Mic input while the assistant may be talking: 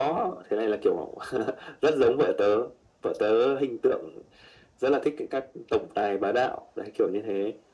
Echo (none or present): present